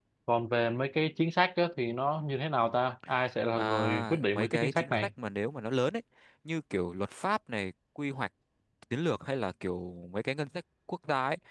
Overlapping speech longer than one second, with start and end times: 3.5-5.1

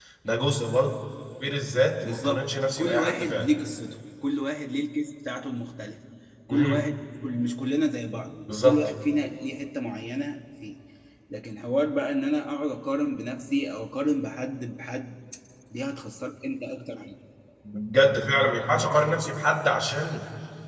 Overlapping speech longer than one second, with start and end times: 2.0-3.5

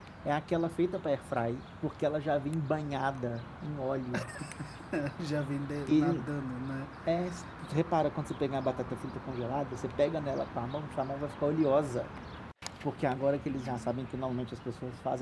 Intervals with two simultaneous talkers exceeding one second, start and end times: none

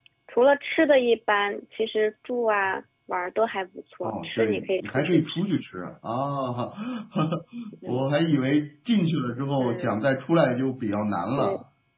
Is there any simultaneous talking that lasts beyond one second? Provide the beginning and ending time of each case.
4.0-5.4

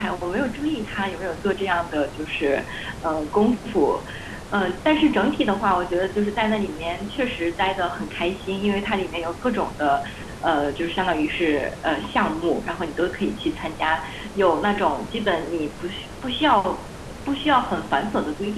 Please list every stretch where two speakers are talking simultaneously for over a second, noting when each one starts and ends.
none

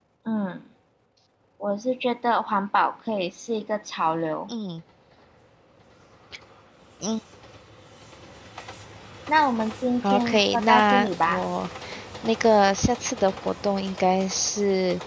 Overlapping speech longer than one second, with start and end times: 10.0-11.4

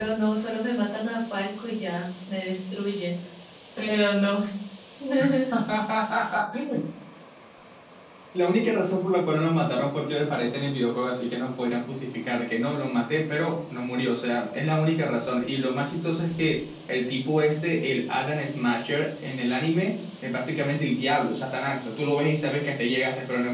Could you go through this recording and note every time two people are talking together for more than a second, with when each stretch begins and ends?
none

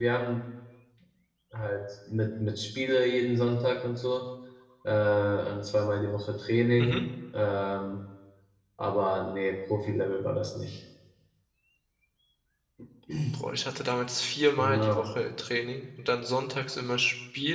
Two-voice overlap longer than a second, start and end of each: none

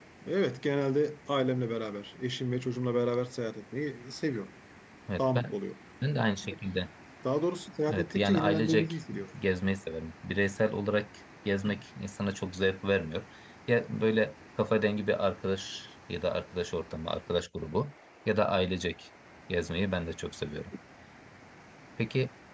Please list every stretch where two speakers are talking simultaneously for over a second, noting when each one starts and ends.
7.9-9.3

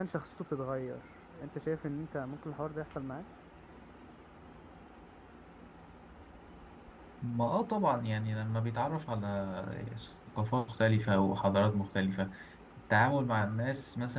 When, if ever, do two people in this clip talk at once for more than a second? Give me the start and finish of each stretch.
none

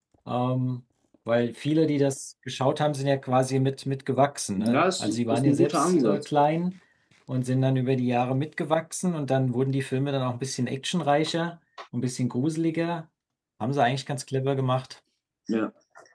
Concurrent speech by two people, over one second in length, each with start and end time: 4.6-6.2

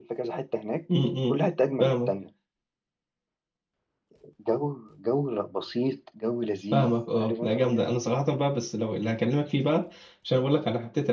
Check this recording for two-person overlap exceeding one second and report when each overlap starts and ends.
6.7-8.0

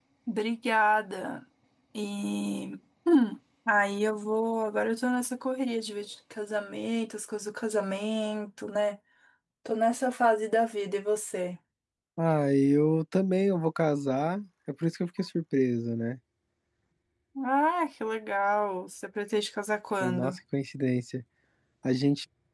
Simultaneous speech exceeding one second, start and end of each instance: none

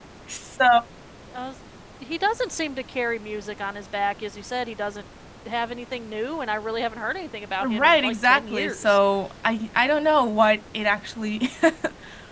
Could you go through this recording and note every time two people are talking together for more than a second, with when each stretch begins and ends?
7.6-9.0

